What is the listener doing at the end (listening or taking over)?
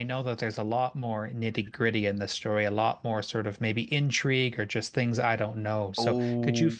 taking over